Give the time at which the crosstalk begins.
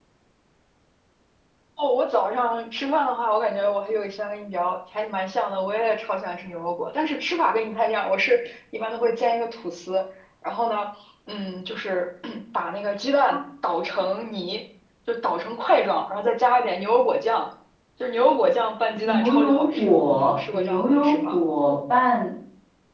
19 s

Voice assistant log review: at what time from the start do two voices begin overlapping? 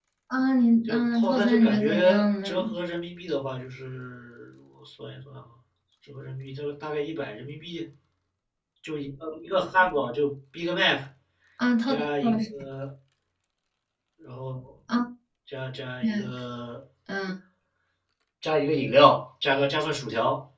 1 s

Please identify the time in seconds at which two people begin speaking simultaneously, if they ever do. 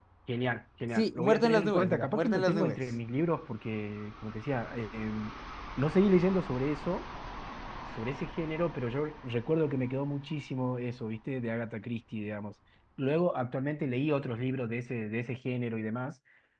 1 s

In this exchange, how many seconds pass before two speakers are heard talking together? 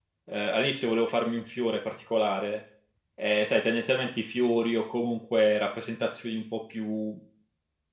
none

